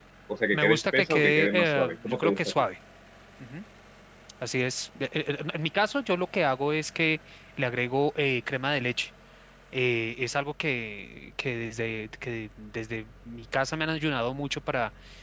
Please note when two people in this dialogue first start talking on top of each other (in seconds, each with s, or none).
0.5 s